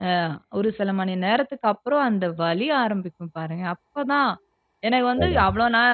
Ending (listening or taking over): listening